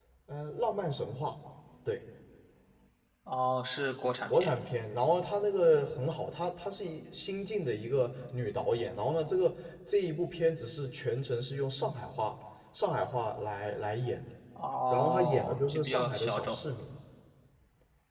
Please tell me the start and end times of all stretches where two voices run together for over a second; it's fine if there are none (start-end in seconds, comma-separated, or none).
14.9-16.6